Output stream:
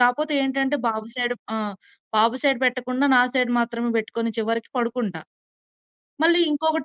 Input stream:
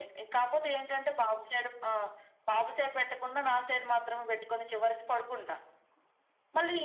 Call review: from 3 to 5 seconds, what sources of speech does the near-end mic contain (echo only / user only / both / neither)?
echo only